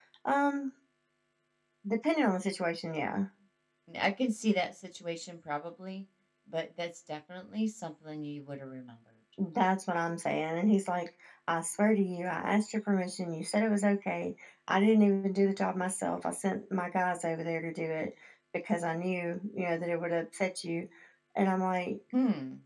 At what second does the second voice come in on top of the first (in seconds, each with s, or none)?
none